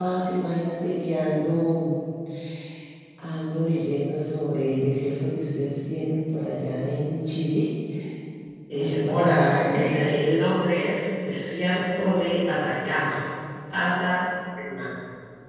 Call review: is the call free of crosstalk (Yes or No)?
No